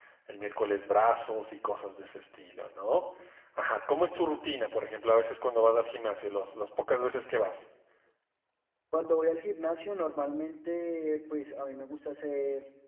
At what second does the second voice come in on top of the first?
none

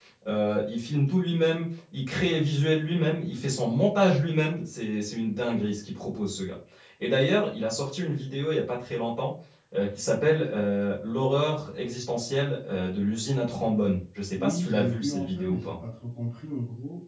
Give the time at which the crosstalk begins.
14.4 s

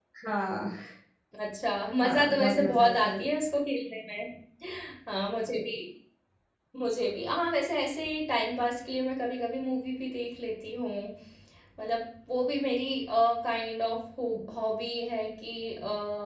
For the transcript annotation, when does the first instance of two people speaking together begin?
2.0 s

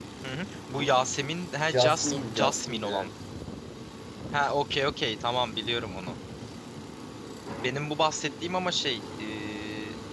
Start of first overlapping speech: 1.7 s

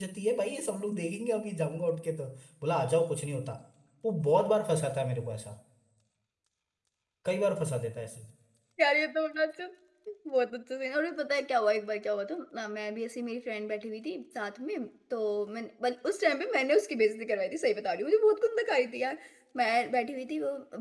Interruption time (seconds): none

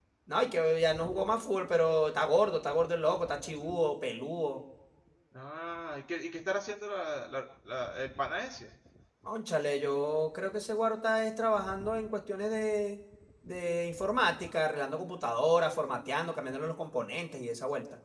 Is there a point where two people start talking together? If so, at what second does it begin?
none

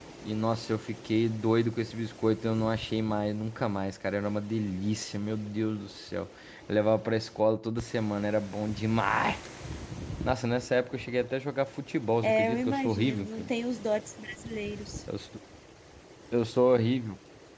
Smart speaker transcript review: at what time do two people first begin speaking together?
12.2 s

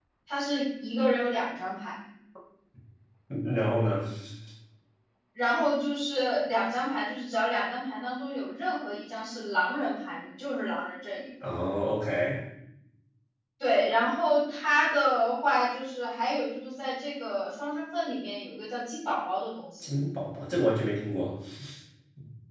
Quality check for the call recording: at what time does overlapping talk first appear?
none

